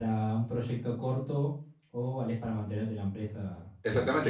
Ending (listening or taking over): taking over